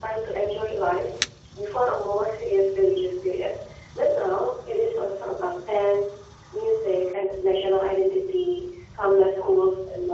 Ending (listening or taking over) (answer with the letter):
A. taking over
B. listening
B